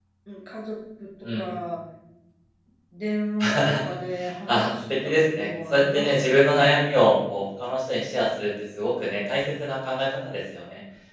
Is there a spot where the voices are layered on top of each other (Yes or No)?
Yes